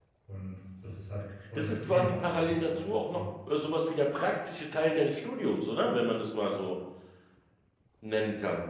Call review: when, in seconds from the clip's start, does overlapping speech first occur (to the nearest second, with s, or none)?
2 s